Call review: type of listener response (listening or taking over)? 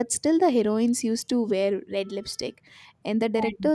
listening